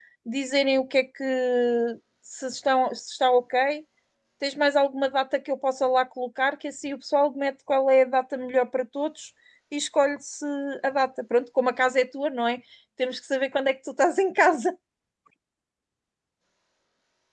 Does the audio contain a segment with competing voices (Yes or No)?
No